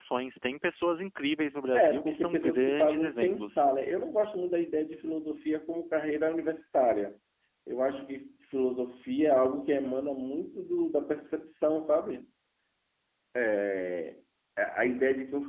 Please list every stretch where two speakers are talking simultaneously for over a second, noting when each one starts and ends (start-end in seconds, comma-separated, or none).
1.7-3.6